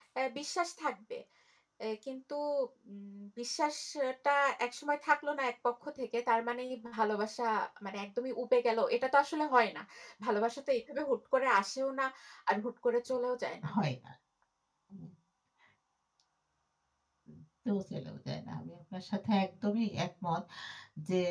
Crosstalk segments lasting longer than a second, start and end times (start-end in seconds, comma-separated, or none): none